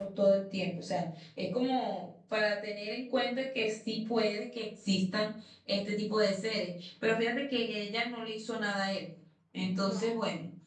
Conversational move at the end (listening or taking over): listening